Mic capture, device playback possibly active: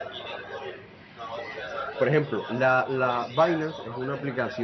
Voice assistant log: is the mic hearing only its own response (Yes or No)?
No